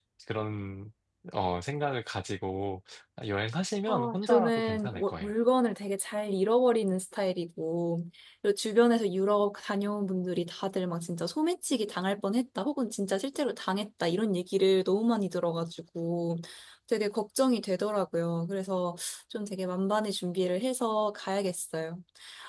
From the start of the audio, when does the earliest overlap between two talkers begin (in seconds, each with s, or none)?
3.9 s